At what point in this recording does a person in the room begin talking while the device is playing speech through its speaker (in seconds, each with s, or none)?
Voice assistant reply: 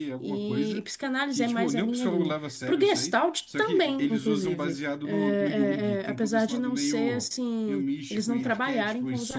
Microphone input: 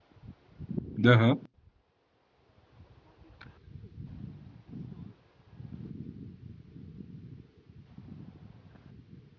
1.1 s